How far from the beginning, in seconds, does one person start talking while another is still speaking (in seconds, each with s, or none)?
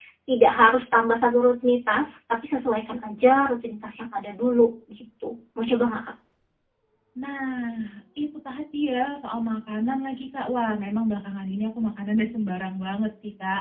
none